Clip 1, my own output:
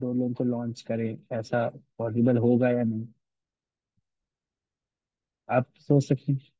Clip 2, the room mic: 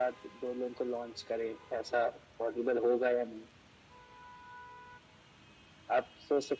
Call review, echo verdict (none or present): present